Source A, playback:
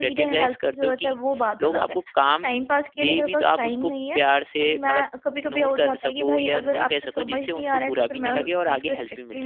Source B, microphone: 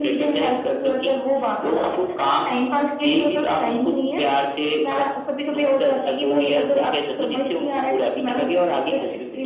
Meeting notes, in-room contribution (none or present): none